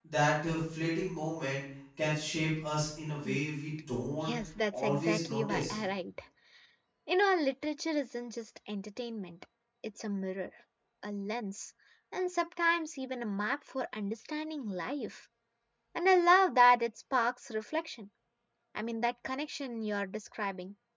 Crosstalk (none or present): present